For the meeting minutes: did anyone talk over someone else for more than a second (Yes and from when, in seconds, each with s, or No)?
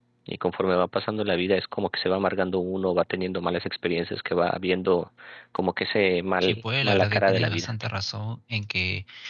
Yes, from 6.4 s